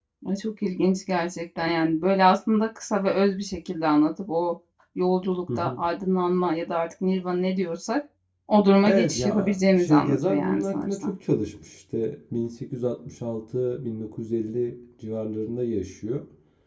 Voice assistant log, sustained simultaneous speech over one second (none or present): present